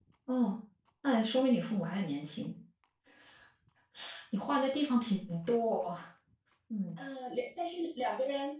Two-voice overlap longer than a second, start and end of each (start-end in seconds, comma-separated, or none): none